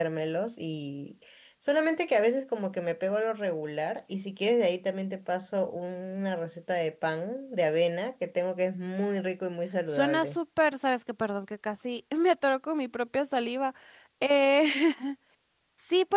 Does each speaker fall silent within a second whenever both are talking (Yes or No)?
Yes